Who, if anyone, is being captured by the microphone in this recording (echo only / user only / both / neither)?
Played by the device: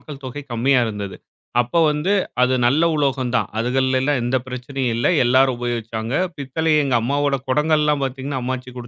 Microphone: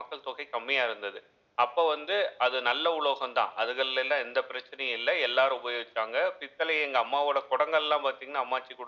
echo only